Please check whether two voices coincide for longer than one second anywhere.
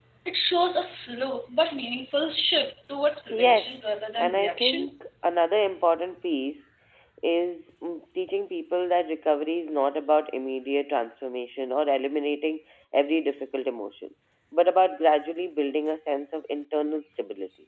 Yes, from 3.3 s

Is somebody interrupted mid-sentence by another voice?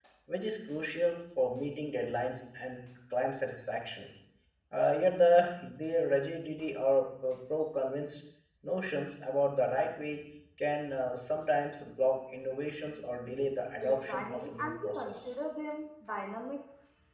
Yes, from 13.8 s

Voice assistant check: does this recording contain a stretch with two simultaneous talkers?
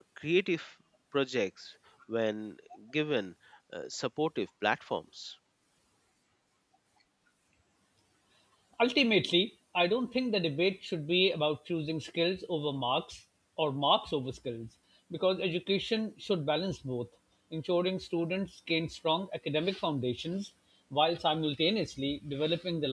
No

